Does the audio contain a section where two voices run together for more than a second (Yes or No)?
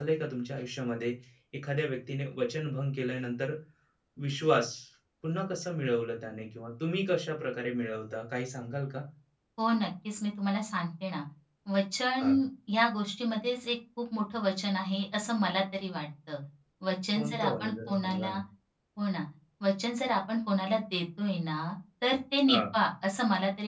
Yes